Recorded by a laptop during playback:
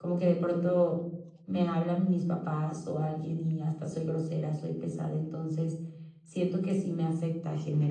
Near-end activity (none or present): present